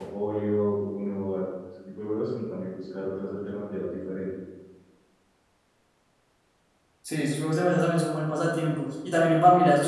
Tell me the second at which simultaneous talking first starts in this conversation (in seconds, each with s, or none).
none